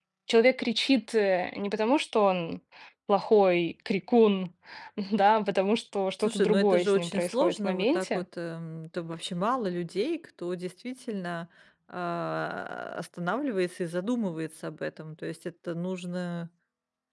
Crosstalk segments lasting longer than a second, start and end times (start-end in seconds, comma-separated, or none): 6.2-8.2